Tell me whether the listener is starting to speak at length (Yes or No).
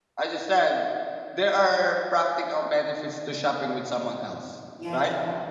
Yes